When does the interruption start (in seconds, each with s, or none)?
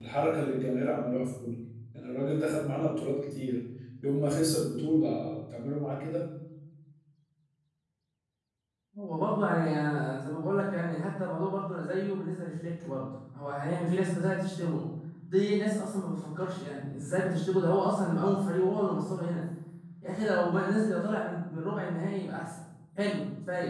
none